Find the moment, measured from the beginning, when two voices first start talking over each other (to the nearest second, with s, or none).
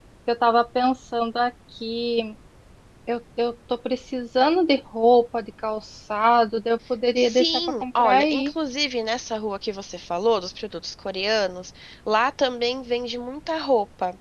7 s